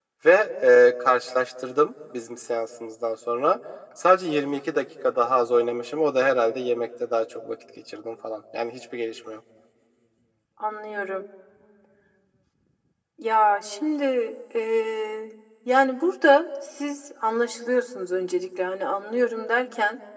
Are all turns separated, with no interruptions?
Yes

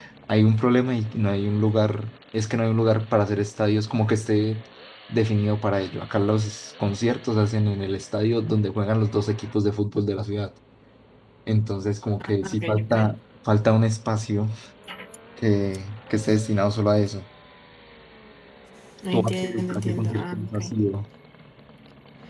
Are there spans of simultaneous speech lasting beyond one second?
Yes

